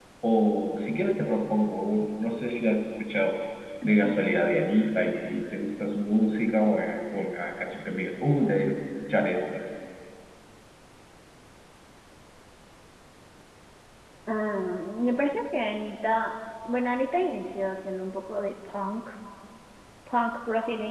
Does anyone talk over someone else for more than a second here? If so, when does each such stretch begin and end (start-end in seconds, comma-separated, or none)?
none